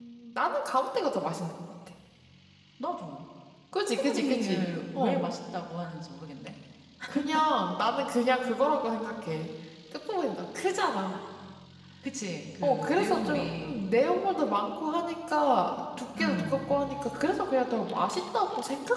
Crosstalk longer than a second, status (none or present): present